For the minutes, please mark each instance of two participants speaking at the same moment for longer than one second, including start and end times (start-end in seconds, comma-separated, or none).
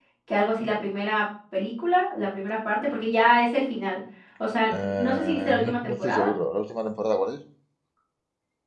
4.7-6.3